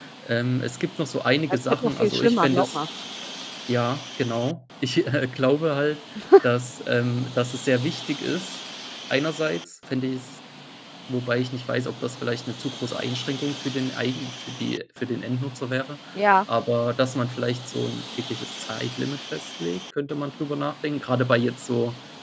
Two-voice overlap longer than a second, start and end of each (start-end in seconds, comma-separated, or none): 1.5-2.8